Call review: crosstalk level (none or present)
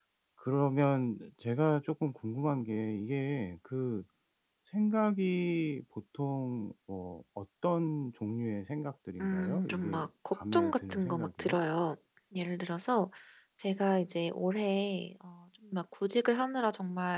present